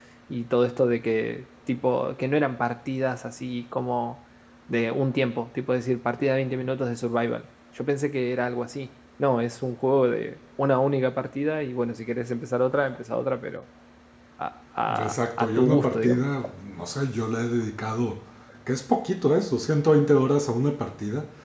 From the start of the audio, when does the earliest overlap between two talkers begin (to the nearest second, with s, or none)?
15 s